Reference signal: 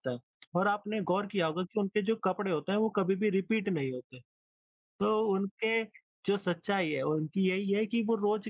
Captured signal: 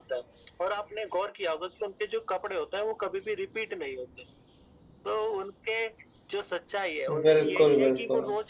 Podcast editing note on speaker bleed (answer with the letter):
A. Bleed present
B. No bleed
A